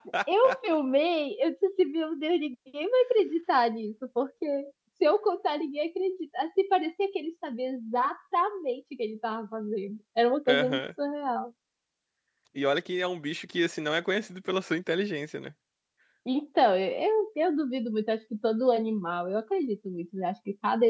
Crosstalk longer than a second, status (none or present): none